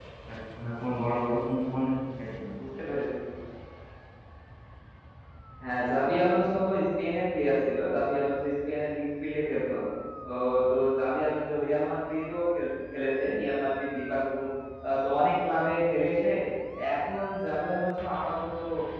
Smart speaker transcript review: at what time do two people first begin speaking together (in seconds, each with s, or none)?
none